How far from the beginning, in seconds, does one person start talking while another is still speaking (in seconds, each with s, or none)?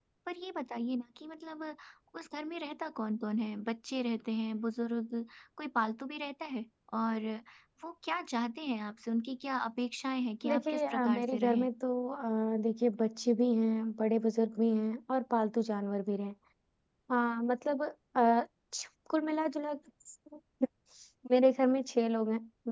10.4 s